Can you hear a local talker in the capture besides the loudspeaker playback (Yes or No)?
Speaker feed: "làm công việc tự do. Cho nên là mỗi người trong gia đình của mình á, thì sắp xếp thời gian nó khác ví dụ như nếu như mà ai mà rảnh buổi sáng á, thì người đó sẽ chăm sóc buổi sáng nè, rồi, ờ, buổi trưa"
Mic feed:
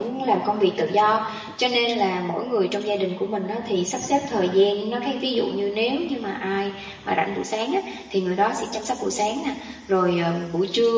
No